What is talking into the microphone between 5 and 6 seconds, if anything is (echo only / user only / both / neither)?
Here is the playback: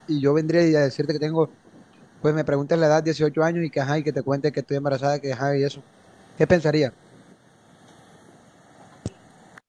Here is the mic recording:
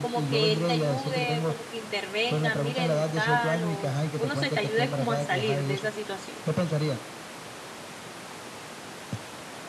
both